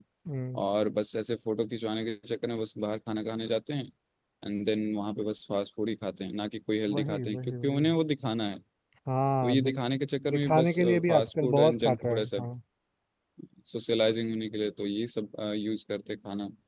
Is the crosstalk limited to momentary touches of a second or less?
No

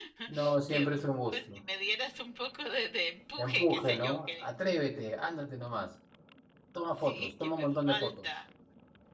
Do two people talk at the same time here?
Yes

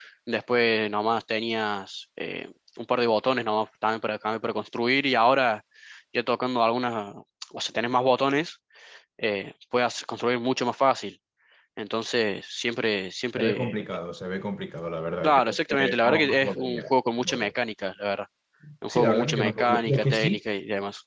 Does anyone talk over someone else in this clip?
Yes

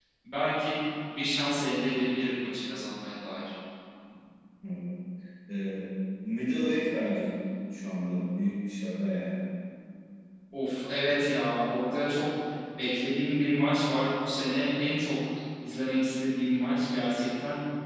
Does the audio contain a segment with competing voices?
No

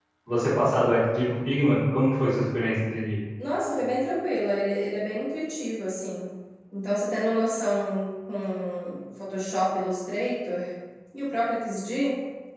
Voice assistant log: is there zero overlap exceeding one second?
Yes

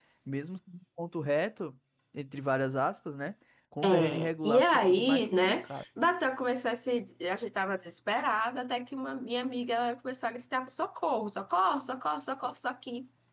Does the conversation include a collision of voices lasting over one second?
Yes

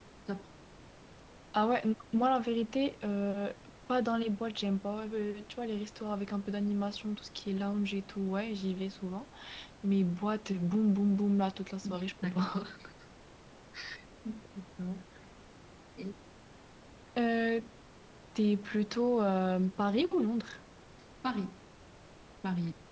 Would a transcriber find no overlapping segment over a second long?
Yes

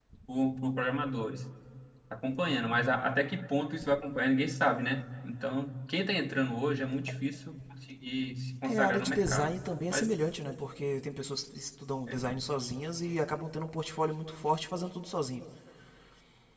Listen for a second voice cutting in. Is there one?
Yes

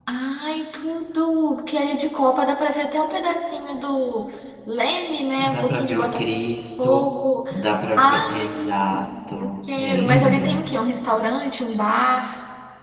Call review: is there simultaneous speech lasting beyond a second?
Yes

